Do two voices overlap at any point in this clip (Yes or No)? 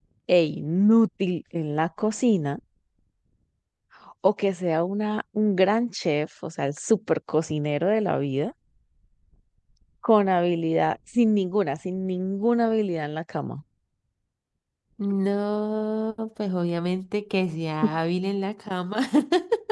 No